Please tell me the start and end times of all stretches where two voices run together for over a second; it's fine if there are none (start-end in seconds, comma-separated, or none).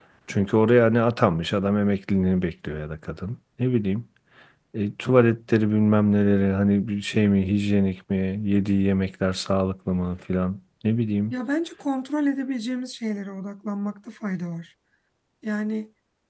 none